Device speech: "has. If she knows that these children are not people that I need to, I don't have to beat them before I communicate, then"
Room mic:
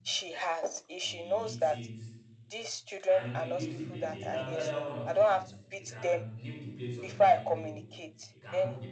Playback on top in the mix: Yes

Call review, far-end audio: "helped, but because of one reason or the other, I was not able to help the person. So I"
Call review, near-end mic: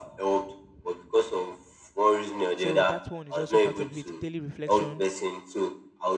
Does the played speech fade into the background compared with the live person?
No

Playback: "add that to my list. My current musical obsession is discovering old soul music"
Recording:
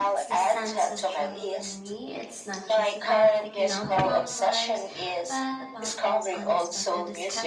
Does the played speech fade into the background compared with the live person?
No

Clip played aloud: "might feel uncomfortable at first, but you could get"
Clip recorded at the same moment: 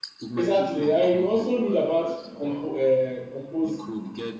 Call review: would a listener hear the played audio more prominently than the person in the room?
No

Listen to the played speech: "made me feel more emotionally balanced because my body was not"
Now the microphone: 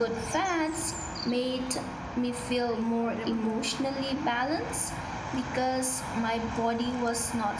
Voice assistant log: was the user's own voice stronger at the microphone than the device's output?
No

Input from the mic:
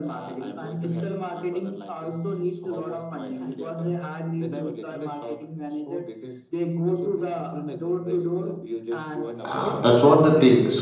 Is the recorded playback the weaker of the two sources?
Yes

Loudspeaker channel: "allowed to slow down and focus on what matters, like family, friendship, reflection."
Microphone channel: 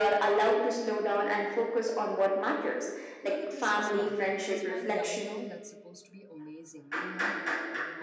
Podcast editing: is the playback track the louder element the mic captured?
Yes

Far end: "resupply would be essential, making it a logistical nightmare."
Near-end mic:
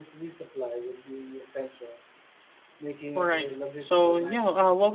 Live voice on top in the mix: Yes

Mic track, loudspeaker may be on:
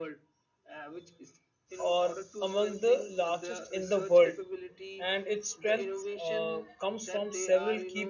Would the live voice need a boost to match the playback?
No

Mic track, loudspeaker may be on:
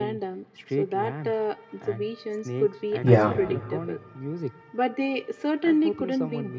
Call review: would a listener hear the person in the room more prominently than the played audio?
Yes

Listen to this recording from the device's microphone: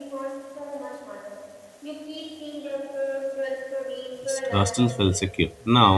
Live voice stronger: Yes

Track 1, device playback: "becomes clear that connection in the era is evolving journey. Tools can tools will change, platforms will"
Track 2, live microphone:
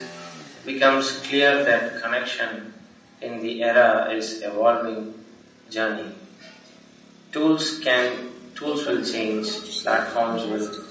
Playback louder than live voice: Yes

